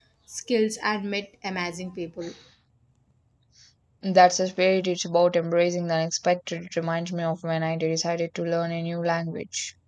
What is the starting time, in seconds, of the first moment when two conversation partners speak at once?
none

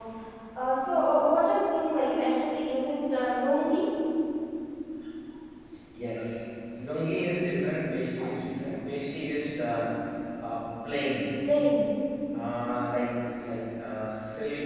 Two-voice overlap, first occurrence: none

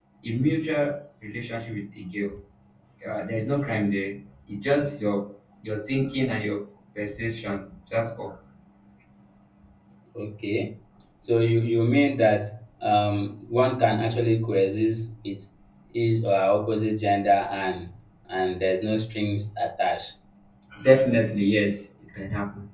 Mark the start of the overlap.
none

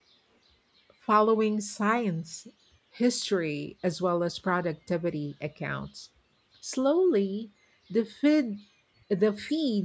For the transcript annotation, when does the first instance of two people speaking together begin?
none

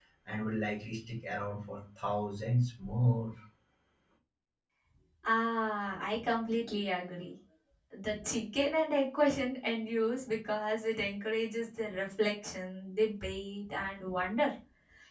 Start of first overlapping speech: none

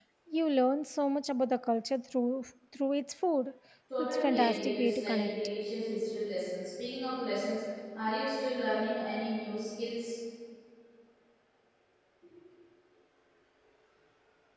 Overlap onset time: 4.0 s

